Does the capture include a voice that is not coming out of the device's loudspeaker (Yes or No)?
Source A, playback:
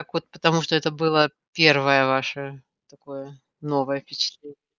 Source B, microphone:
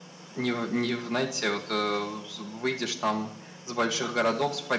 Yes